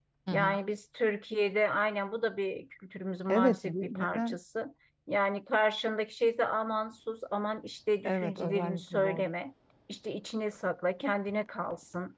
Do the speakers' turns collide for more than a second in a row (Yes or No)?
Yes